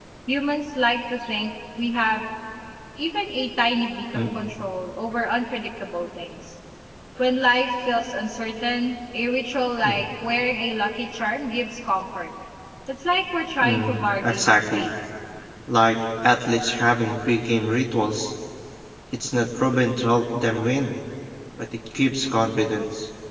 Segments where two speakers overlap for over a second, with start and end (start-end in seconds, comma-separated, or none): 13.6-14.8